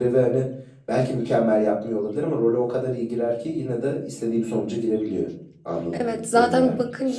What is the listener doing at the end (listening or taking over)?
taking over